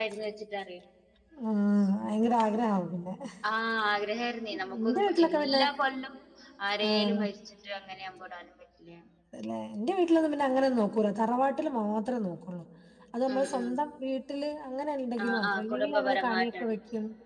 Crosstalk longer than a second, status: present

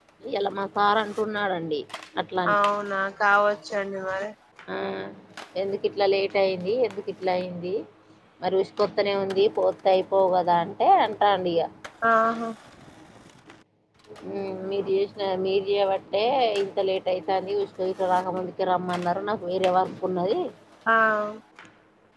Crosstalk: none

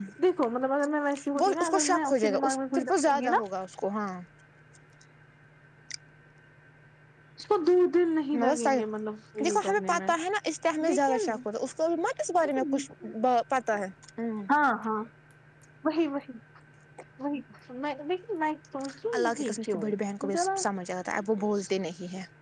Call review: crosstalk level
present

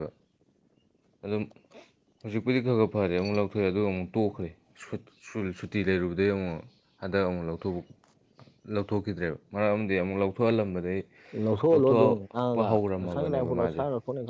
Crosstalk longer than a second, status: present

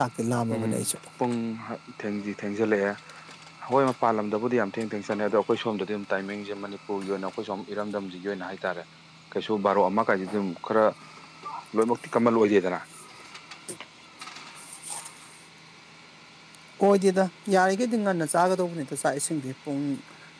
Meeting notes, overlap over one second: none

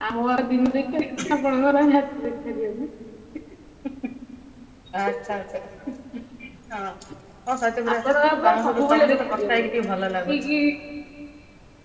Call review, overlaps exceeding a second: present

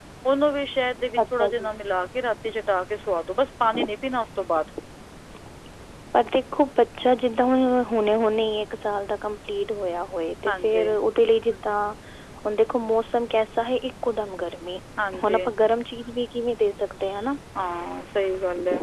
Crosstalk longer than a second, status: none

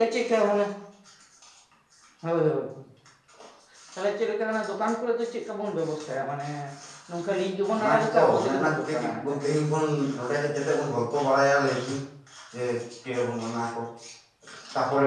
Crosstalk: present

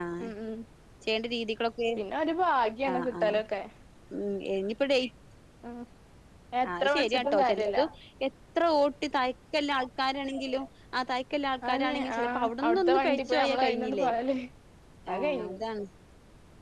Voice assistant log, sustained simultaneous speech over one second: present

